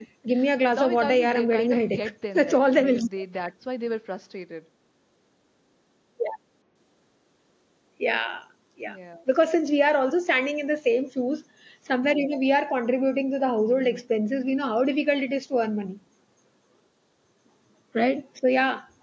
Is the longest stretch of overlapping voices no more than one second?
No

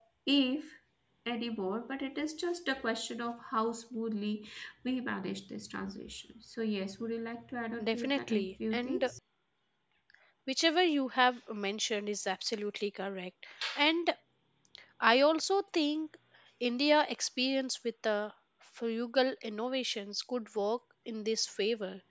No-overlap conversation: No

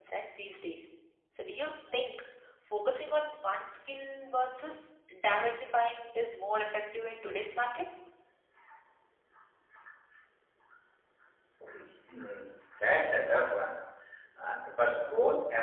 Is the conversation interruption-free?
Yes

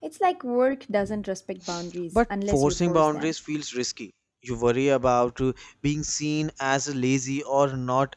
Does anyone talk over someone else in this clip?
Yes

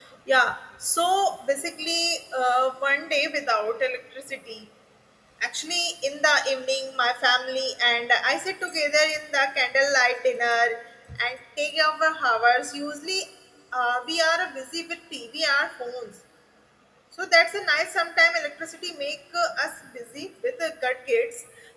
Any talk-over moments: No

